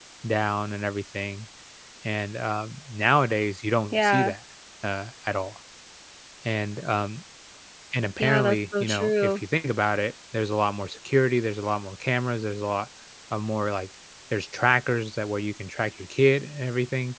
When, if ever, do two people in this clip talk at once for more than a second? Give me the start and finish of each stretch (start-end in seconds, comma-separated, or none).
8.2-9.4